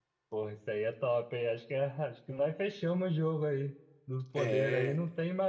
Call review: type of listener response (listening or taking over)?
listening